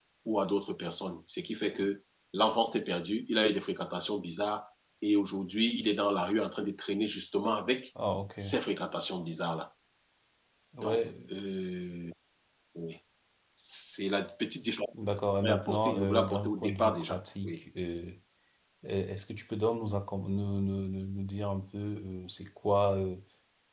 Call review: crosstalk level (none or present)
present